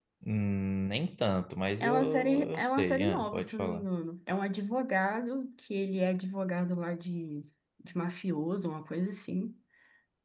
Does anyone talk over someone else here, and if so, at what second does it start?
2 s

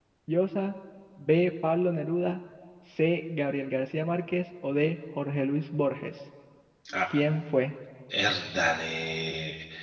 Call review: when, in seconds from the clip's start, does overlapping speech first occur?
none

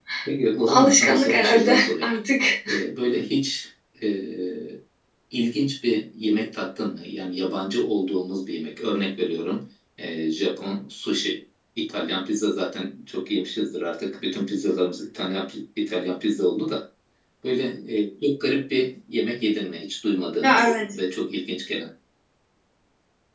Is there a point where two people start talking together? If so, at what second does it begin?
1 s

